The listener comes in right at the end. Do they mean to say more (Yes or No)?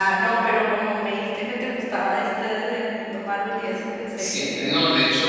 Yes